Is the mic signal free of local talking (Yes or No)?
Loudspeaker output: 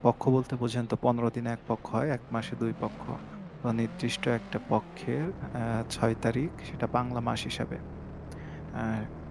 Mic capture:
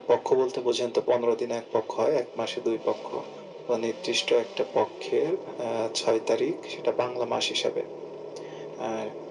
Yes